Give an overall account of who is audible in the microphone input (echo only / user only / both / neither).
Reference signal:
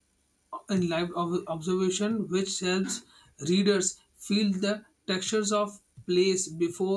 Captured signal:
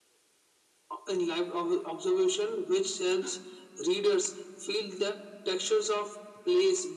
echo only